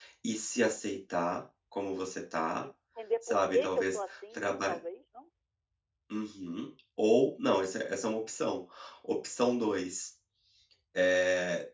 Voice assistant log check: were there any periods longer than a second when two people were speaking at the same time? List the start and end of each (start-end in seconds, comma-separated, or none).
3.2-4.8